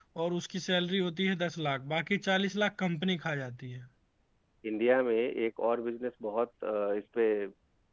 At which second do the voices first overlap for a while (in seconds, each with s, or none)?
none